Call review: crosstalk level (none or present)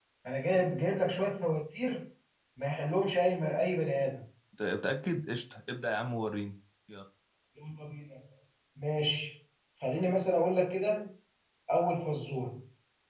none